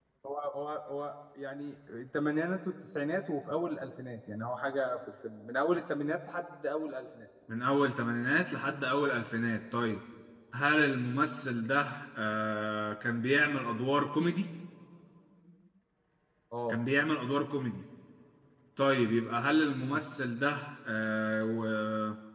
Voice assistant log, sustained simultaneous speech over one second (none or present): none